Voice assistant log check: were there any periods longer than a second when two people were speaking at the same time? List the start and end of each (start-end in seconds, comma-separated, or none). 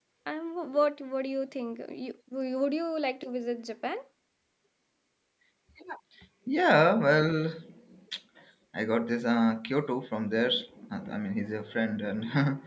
none